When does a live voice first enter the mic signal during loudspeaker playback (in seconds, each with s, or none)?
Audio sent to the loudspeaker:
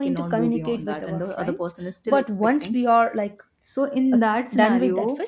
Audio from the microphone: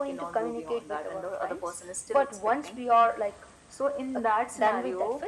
none